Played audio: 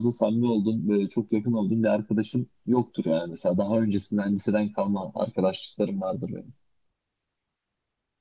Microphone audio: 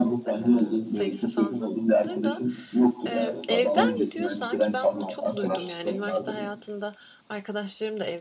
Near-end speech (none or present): present